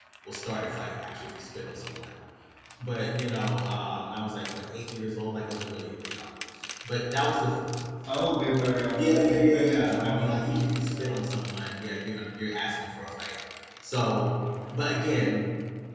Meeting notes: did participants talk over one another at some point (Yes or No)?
Yes